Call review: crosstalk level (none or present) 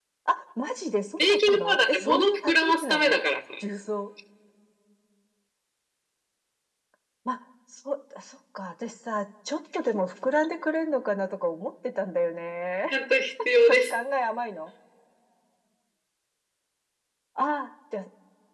present